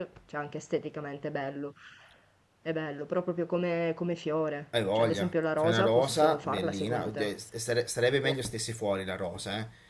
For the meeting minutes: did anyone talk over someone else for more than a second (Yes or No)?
Yes